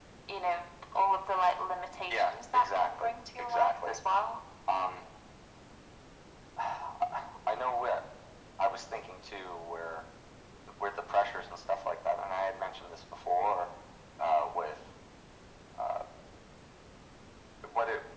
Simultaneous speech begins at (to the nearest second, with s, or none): 2 s